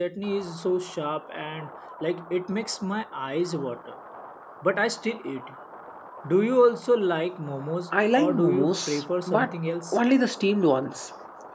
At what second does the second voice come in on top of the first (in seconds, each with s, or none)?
7.9 s